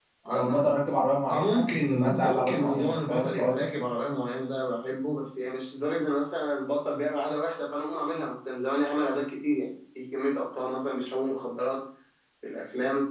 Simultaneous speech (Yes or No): Yes